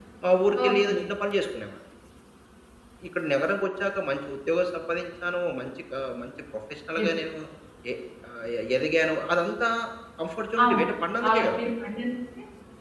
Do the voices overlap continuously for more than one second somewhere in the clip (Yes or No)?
No